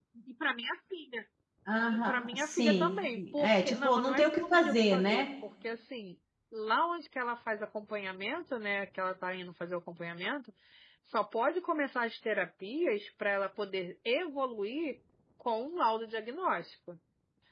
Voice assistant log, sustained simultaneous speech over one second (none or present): present